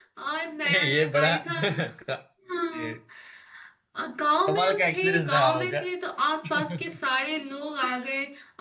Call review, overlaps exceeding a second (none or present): present